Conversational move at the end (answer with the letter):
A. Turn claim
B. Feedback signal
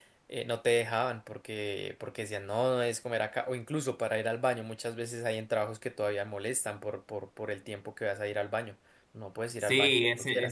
A